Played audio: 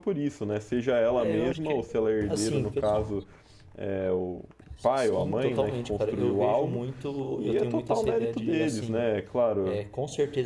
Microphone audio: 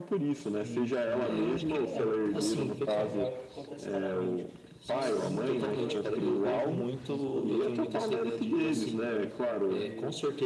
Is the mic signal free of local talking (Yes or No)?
No